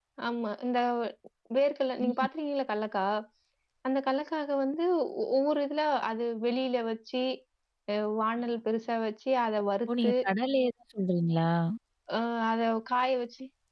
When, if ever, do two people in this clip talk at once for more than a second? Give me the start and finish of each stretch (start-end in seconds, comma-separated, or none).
none